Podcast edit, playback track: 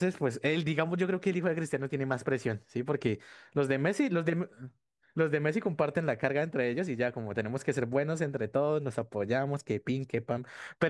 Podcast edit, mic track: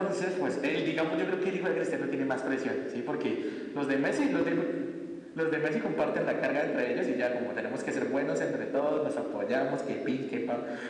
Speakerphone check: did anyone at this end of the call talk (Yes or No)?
No